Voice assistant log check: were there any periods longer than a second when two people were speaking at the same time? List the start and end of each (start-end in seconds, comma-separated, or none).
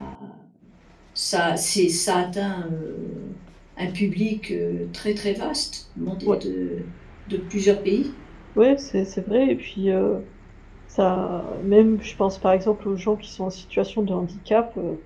none